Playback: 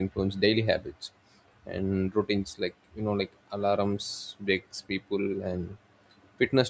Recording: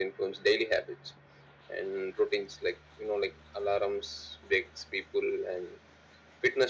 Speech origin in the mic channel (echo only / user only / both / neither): echo only